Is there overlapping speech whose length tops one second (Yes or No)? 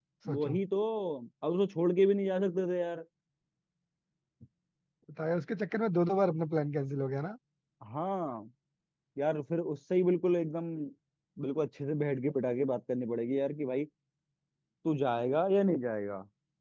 No